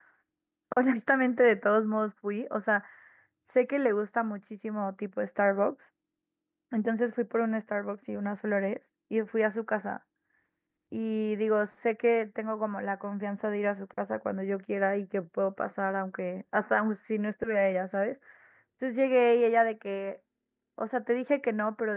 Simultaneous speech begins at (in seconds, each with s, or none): none